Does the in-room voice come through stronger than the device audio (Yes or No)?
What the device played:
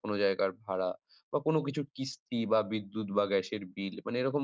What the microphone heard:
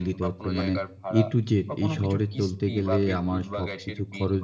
Yes